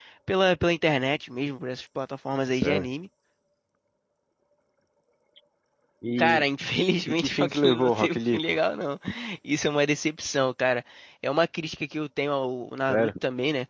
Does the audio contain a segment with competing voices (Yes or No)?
Yes